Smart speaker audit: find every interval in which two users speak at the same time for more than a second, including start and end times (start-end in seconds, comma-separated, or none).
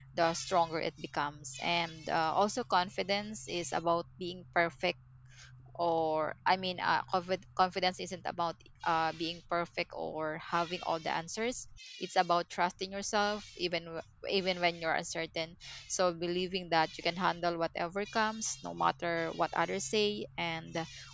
none